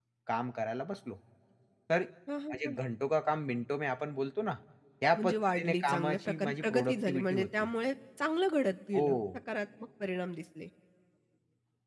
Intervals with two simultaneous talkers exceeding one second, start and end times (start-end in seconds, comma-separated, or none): 5.2-7.7